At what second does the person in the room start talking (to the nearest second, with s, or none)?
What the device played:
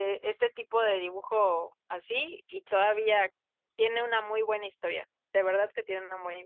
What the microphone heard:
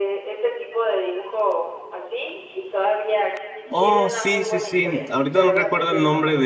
4 s